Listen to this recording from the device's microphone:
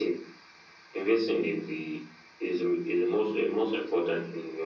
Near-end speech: none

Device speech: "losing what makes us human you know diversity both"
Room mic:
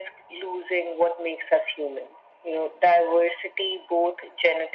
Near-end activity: none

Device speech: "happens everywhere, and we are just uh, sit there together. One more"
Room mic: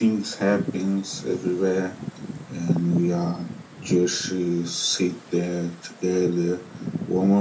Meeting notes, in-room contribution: none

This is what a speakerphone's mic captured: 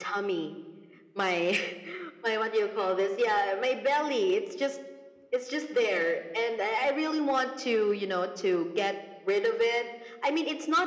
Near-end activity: none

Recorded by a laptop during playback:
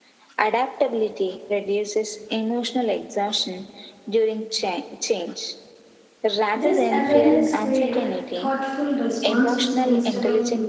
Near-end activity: present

